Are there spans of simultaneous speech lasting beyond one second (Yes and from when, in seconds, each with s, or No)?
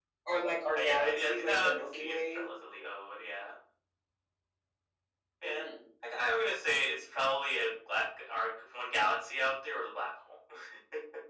Yes, from 0.7 s